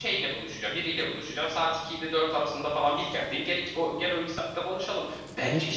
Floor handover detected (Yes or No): Yes